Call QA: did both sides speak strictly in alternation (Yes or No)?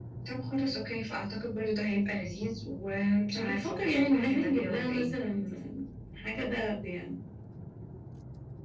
No